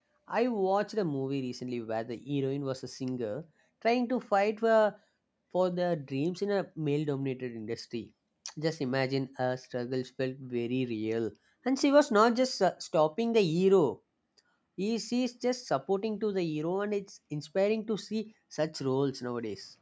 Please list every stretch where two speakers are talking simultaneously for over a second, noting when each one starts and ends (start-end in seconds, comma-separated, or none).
none